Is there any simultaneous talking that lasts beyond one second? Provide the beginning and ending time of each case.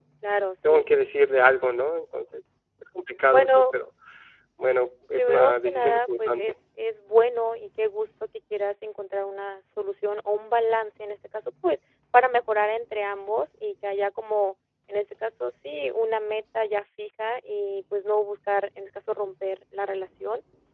5.1-6.5

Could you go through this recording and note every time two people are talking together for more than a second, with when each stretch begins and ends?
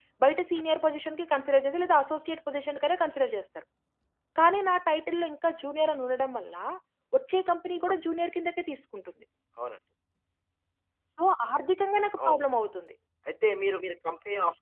none

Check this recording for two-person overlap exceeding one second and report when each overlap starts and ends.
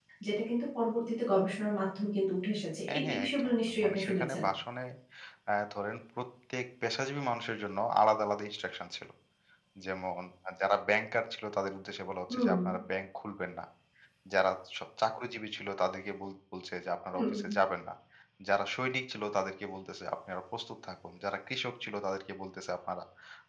2.9-4.4

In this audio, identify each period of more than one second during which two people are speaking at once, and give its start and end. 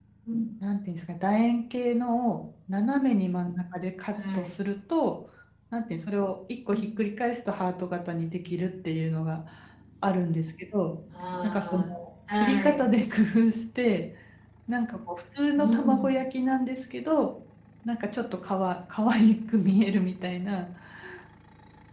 none

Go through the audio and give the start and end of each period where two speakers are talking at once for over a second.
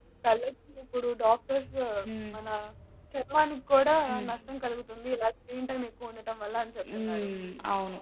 none

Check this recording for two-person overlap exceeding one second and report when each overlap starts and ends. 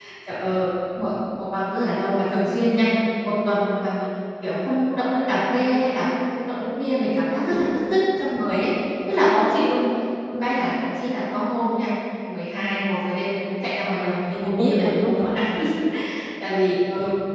14.0-15.3

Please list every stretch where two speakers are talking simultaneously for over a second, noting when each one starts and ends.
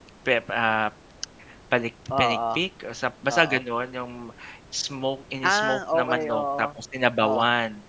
5.4-6.7

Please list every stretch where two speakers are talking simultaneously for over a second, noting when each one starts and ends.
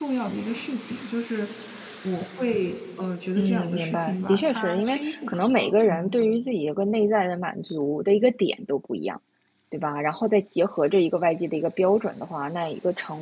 3.4-6.2

